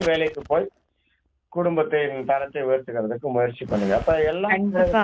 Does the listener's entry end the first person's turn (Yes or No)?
Yes